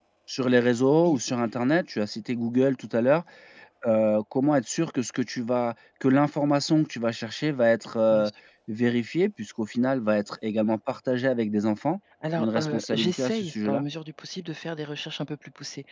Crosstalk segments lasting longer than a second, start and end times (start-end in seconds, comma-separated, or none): 12.4-13.8